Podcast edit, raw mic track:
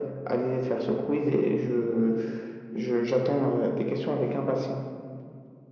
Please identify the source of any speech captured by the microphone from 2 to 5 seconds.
echo only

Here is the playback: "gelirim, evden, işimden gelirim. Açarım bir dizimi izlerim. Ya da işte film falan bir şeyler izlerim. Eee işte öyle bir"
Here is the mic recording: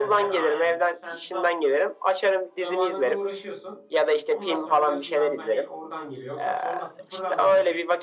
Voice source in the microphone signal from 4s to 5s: both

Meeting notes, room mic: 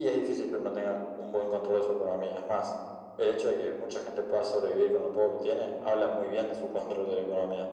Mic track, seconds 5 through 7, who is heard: echo only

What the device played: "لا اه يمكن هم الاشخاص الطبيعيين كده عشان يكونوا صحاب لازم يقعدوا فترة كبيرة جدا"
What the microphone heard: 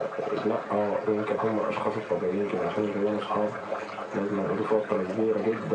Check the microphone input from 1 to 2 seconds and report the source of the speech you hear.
echo only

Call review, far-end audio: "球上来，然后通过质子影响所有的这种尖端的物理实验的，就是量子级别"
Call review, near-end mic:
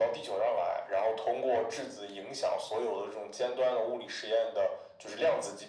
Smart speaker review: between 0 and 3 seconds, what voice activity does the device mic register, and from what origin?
echo only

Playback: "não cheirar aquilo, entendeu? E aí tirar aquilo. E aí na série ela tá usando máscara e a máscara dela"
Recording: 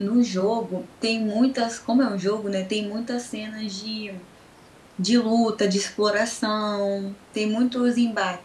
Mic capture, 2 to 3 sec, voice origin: user only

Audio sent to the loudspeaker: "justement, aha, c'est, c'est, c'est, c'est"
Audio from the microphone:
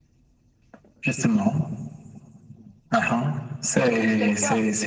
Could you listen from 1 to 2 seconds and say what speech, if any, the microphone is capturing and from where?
echo only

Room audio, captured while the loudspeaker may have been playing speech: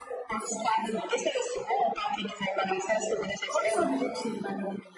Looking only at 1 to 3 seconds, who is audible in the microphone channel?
echo only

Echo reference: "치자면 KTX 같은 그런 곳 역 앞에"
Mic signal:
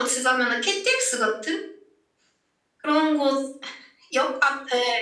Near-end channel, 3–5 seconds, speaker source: echo only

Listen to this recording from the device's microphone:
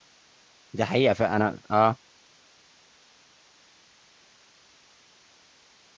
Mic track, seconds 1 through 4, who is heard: user only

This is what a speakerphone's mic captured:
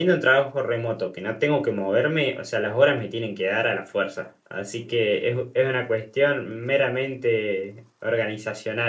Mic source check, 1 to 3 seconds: user only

